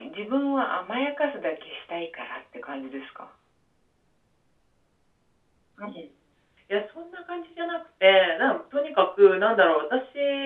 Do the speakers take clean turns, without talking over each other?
Yes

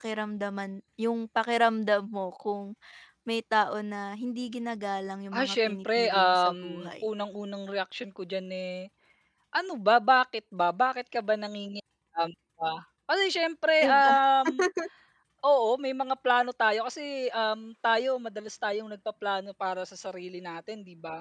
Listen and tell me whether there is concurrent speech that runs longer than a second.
Yes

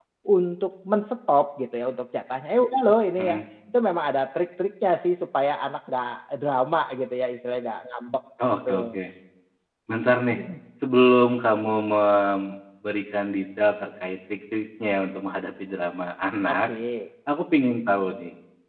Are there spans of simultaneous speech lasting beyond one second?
No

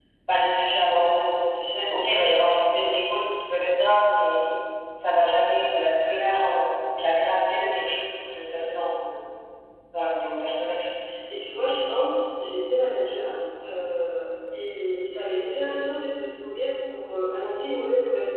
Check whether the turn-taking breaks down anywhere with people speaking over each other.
No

